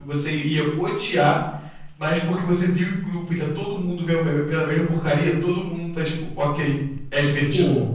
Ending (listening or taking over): taking over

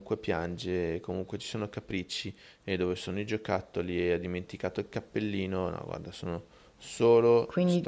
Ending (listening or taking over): taking over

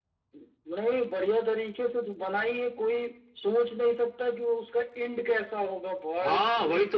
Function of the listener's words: taking over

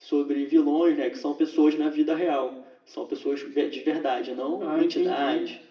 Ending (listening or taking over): taking over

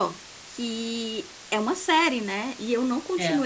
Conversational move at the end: listening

